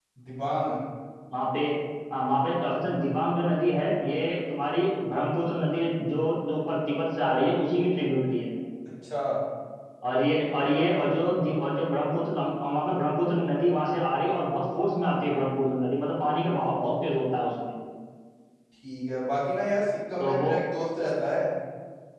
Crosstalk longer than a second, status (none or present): none